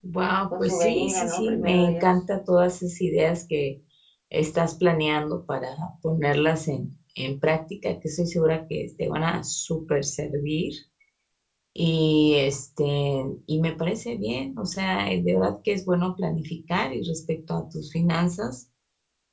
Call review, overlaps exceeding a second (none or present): present